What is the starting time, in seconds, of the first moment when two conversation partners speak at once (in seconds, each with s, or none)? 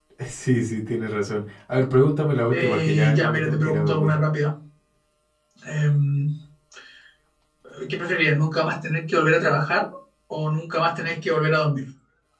2.5 s